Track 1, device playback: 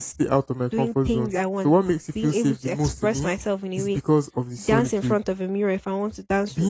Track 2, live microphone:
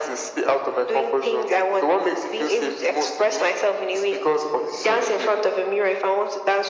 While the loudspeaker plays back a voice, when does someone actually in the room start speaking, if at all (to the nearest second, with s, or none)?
none